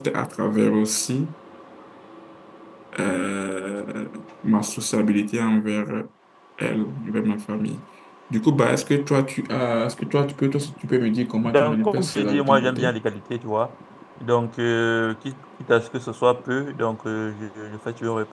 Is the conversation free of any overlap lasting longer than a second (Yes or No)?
No